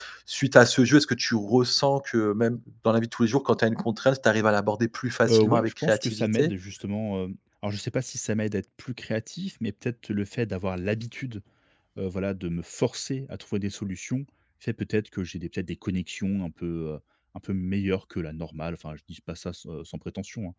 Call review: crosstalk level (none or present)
present